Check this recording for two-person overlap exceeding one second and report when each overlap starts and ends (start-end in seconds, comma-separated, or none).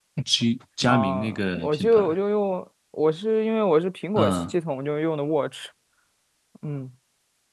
0.9-2.1